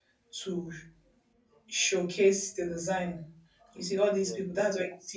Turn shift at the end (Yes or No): No